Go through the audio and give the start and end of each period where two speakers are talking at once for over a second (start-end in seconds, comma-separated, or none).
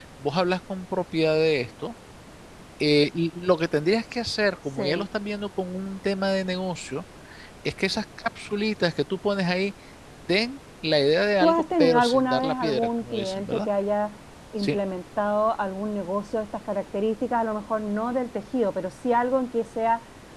11.4-13.7